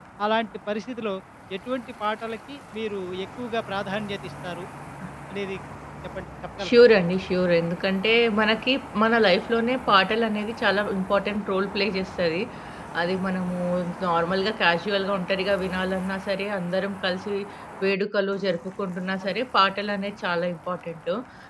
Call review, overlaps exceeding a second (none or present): none